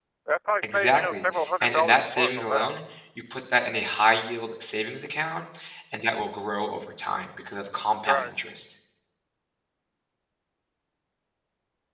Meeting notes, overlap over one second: present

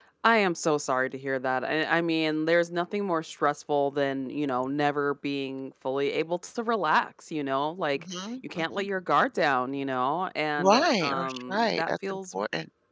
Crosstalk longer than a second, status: present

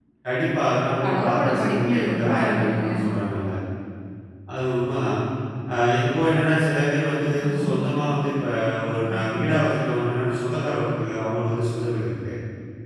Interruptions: present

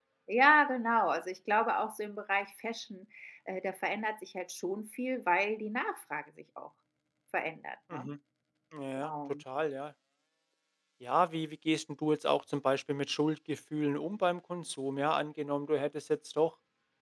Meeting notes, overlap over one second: none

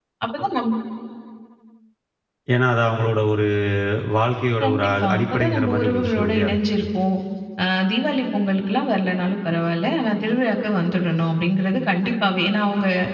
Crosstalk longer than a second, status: present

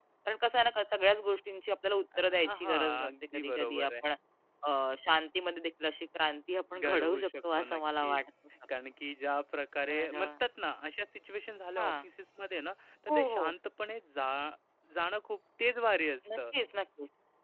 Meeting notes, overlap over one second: present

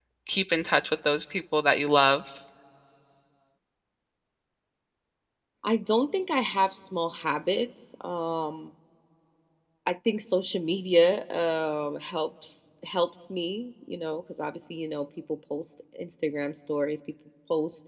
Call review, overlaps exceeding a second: none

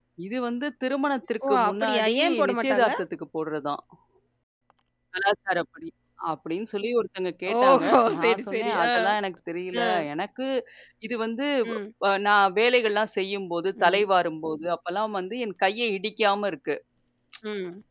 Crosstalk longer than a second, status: present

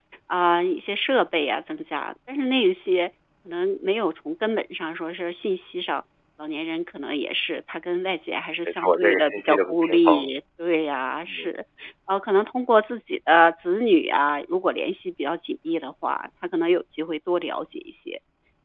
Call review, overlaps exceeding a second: present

